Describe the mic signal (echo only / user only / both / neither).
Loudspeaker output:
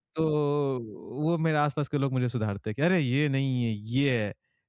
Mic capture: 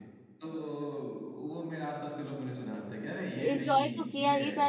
both